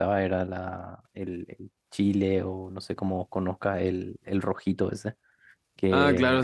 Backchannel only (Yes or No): No